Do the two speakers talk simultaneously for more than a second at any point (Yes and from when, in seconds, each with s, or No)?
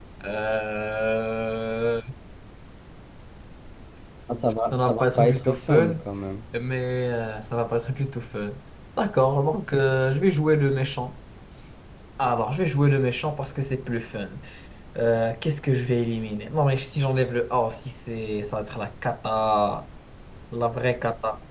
Yes, from 4.7 s